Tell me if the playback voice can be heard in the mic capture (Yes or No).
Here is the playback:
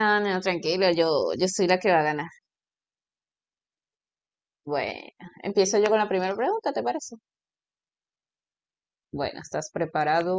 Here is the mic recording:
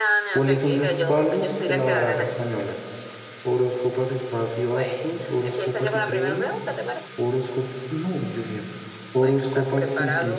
Yes